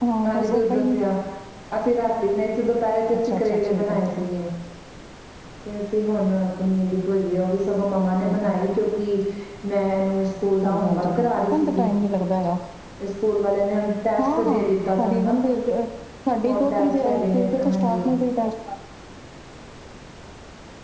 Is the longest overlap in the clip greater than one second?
Yes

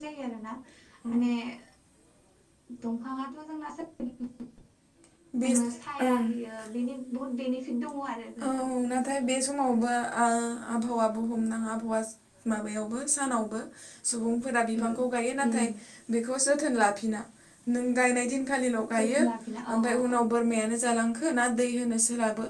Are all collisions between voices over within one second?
Yes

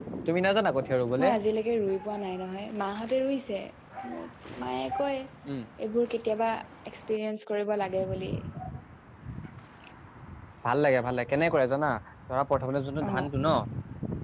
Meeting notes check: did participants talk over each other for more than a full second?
No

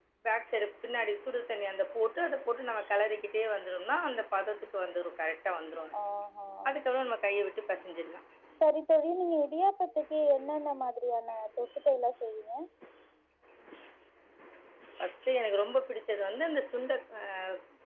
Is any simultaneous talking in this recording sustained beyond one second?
No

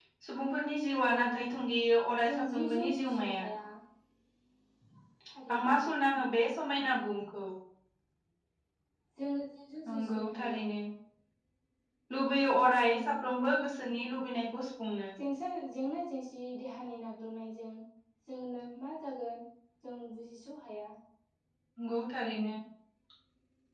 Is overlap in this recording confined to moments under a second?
No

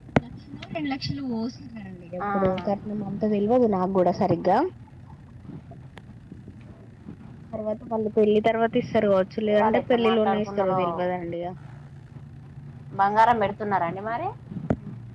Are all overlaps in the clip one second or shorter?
No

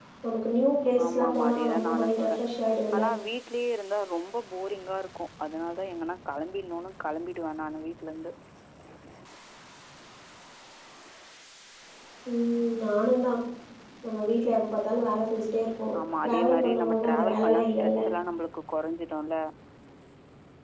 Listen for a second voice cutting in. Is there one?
Yes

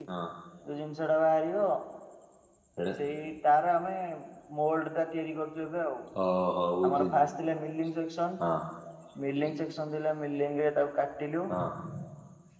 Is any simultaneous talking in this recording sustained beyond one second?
No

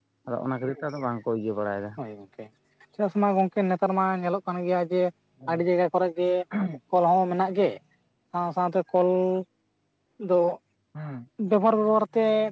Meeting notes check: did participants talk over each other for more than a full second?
No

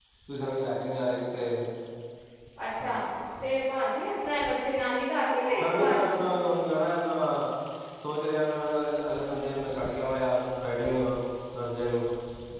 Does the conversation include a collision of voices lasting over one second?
No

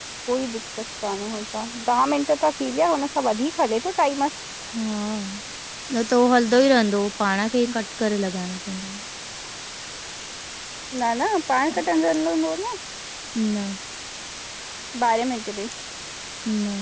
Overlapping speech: No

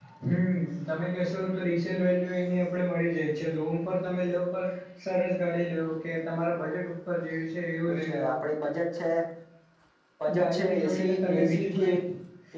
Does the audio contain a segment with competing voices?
Yes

